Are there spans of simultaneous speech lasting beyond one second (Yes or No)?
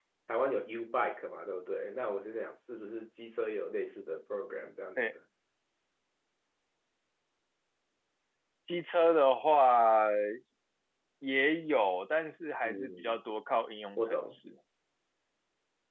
No